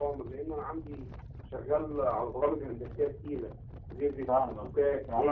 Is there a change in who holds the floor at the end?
Yes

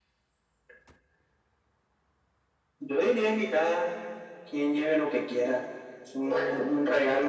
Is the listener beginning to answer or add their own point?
No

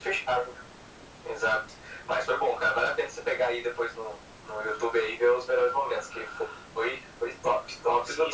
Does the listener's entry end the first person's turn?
Yes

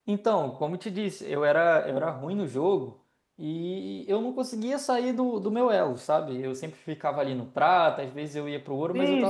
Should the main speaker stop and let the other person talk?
Yes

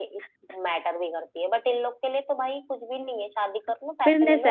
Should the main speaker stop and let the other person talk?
Yes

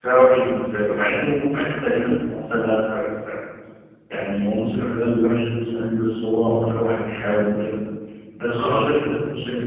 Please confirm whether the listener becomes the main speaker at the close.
No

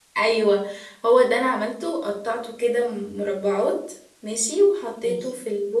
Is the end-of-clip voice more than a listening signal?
No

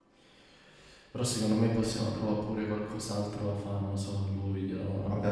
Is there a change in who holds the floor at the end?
Yes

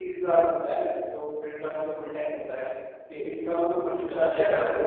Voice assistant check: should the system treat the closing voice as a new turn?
Yes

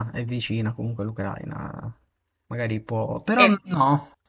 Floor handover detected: No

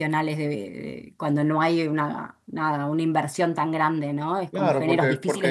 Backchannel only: No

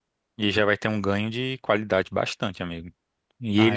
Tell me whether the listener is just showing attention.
Yes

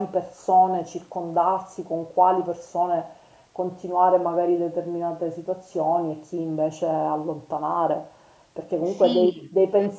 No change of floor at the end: Yes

